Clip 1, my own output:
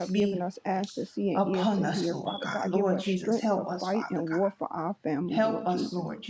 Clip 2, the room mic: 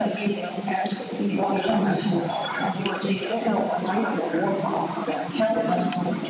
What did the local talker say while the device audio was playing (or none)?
none